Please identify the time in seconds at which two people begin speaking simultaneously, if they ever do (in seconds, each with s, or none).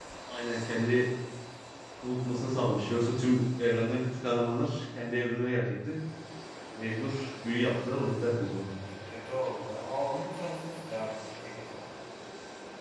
none